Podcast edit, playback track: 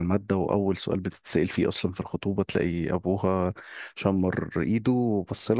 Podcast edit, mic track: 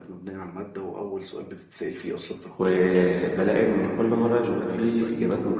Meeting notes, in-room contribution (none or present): present